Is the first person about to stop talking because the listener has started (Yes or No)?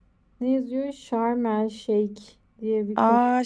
Yes